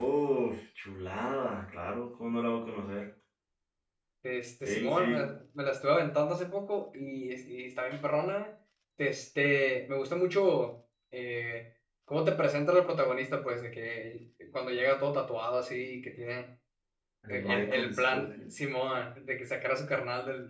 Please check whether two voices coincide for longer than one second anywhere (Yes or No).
Yes